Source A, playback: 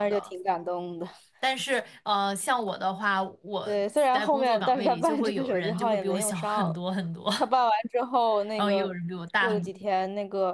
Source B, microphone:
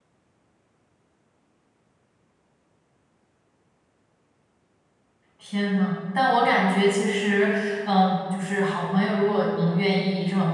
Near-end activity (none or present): present